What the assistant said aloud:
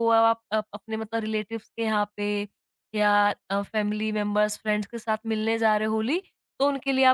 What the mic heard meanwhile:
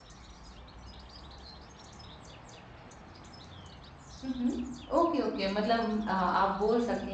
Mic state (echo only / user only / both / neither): user only